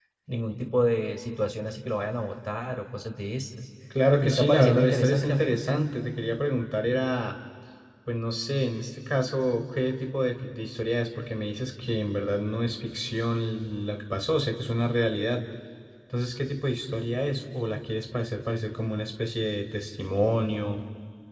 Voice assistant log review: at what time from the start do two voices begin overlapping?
4.2 s

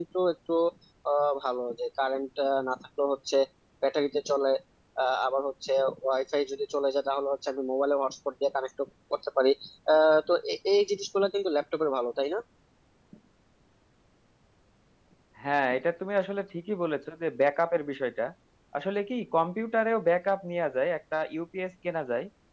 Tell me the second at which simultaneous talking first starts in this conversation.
none

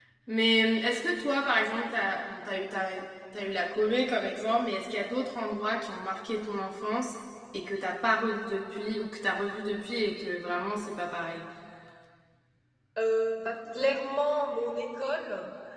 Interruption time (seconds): none

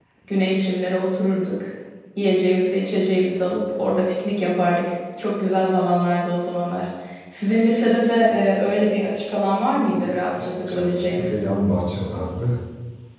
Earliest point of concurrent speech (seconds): 9.8 s

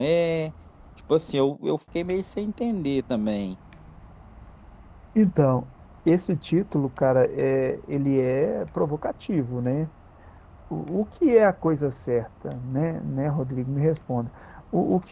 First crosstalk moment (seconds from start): none

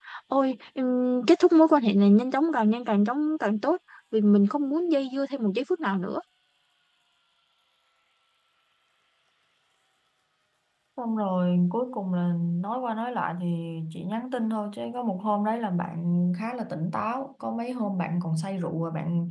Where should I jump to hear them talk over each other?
none

